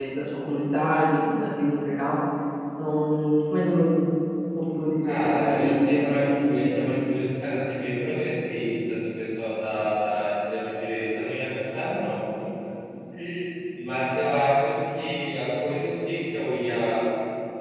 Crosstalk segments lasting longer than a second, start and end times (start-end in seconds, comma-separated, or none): 5.0-6.9